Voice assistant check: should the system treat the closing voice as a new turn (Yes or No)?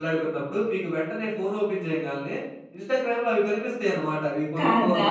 No